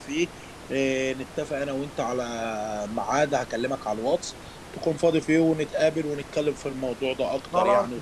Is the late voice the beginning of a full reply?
Yes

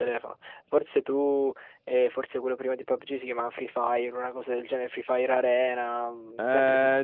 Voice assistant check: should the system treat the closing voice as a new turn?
Yes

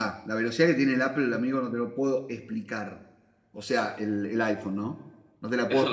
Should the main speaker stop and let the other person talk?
Yes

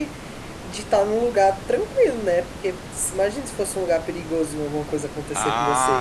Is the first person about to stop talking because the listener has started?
Yes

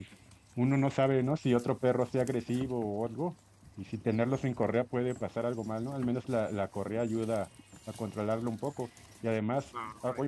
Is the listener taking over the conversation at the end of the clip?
Yes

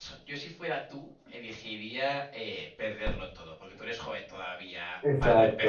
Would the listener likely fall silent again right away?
Yes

